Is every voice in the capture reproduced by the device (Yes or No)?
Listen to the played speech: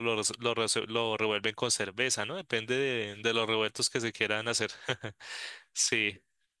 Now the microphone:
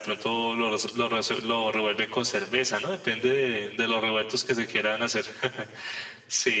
Yes